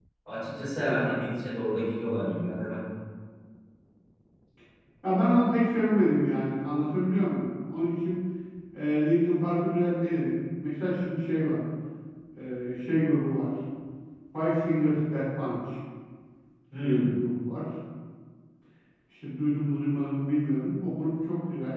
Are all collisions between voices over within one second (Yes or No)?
Yes